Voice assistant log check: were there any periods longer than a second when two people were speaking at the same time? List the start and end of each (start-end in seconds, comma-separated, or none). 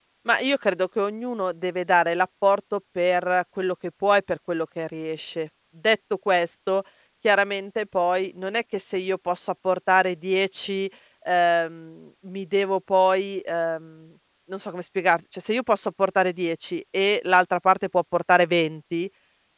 none